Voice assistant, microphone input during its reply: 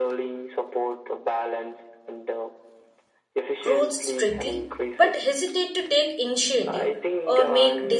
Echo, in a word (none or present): present